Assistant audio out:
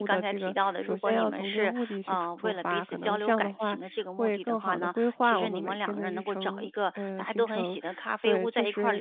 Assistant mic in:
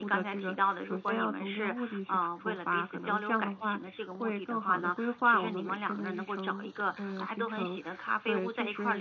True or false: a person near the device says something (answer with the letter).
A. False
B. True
A